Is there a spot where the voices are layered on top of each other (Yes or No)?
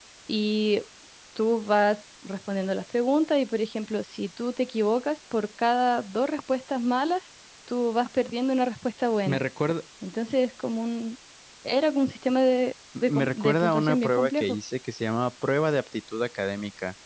Yes